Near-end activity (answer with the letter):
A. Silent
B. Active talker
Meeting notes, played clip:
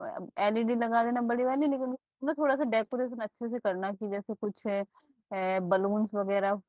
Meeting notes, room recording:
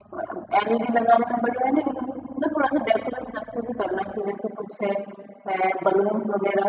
A